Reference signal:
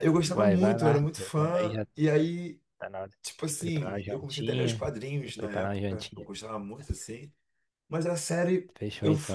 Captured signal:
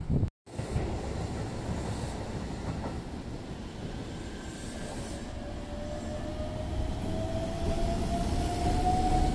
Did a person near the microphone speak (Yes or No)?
No